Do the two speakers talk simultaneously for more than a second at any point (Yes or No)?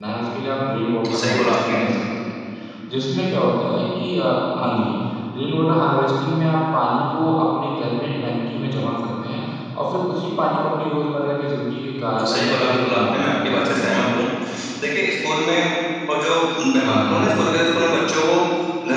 Yes